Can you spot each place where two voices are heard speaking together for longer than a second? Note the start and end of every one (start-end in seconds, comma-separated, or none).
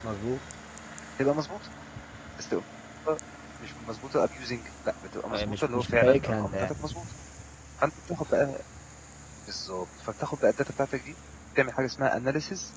5.3-6.7